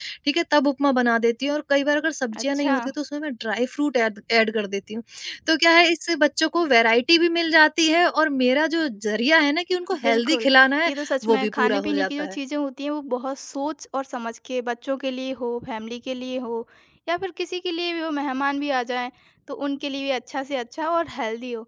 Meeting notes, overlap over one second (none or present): present